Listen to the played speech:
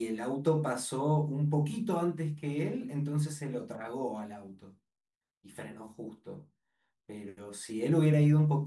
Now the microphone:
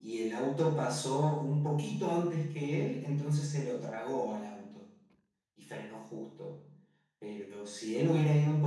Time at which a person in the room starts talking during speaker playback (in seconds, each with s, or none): none